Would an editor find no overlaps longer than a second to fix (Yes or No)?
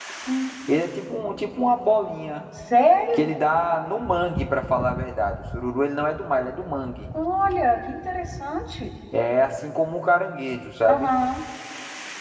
Yes